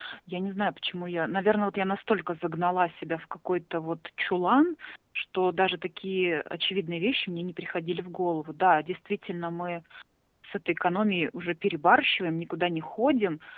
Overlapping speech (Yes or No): No